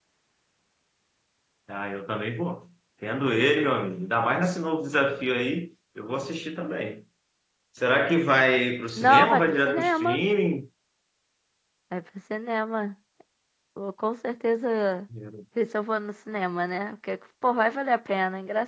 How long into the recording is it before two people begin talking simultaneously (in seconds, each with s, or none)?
9.0 s